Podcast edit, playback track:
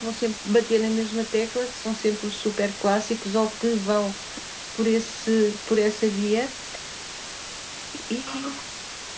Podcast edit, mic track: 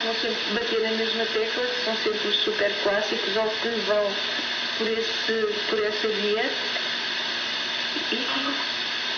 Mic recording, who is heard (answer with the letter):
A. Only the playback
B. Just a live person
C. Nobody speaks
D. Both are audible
A